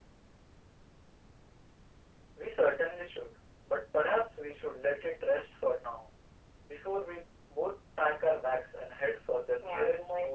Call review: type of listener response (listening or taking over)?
taking over